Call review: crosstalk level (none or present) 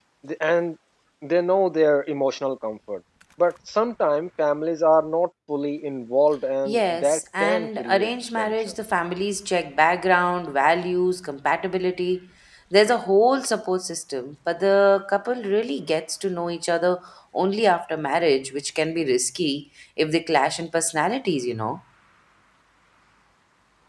present